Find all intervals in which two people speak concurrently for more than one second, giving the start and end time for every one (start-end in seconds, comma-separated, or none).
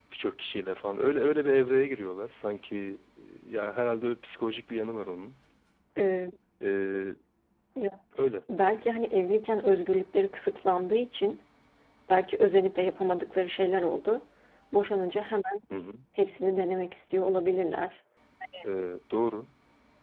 none